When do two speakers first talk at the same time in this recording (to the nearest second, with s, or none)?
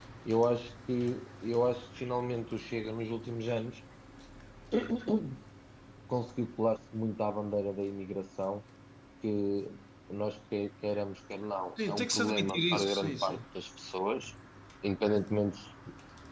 12 s